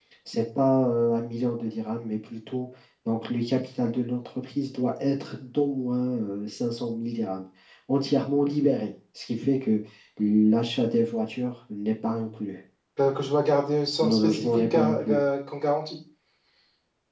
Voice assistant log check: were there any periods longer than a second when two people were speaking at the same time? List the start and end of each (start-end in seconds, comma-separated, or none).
14.0-15.2